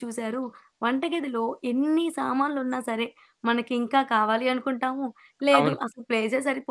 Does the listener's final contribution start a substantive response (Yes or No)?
No